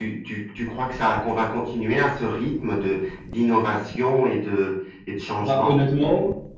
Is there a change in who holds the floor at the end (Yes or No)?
Yes